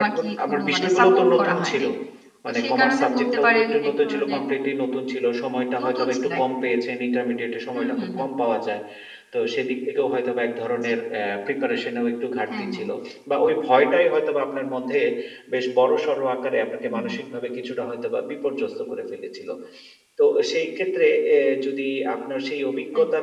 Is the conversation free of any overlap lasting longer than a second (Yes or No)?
No